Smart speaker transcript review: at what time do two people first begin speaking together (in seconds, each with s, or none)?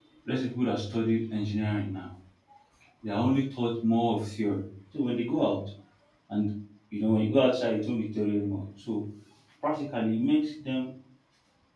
none